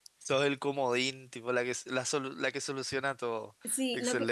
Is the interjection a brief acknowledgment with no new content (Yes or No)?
No